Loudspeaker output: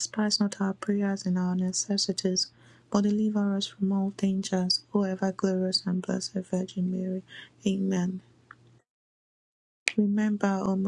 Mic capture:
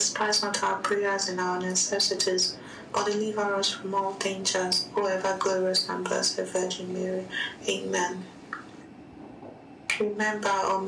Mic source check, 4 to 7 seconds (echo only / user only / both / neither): echo only